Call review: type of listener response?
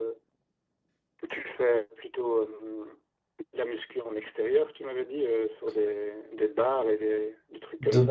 taking over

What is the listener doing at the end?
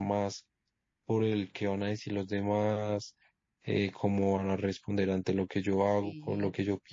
taking over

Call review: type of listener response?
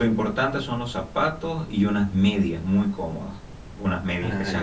listening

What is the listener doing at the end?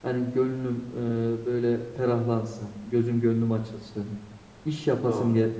listening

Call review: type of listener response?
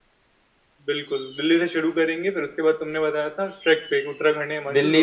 taking over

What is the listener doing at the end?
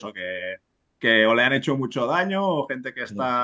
listening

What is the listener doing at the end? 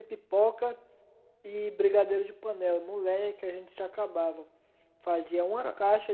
listening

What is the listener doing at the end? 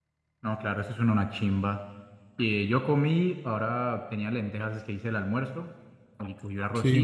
listening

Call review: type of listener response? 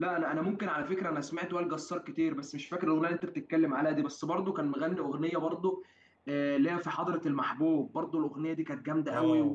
taking over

